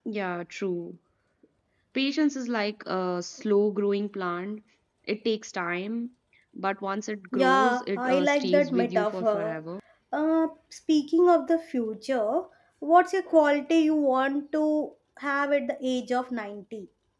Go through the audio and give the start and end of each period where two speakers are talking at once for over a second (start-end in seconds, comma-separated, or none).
7.3-9.6